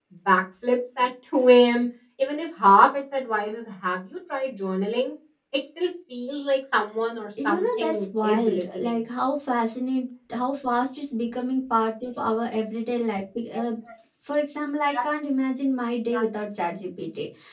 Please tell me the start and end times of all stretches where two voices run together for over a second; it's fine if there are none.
7.4-8.9

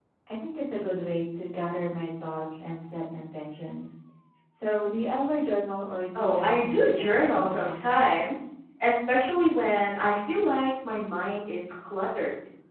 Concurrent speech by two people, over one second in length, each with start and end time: 6.1-8.0

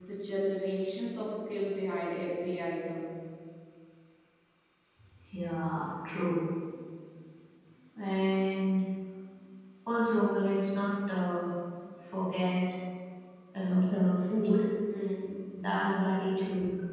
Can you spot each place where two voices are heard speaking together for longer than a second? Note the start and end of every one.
none

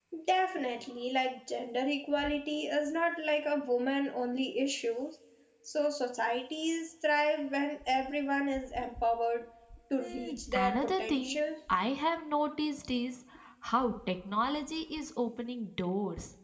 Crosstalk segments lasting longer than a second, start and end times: 10.0-11.4

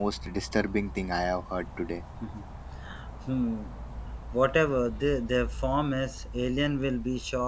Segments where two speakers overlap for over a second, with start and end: none

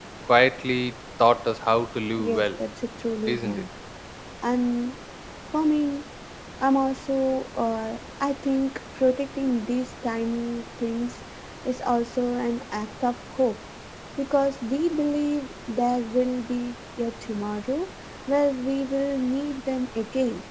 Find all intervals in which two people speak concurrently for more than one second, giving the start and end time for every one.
none

